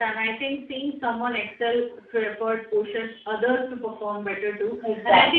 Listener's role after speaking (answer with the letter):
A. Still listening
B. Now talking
A